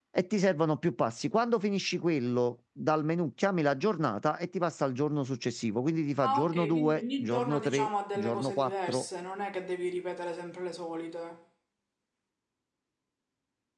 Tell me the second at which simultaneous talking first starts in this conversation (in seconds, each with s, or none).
6.2 s